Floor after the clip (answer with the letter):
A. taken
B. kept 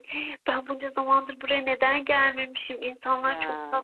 B